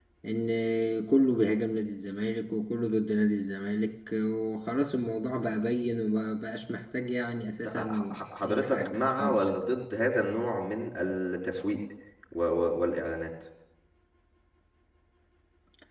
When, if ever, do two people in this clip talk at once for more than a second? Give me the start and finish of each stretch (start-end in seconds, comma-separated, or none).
7.6-9.6